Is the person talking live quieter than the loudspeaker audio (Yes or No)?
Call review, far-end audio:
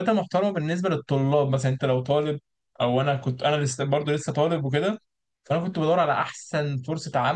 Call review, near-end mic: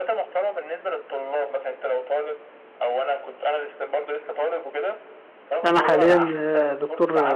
No